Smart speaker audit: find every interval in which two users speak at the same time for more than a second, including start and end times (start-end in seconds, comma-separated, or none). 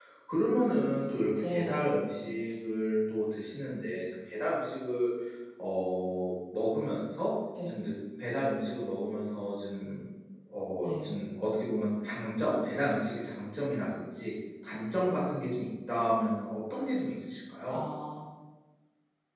none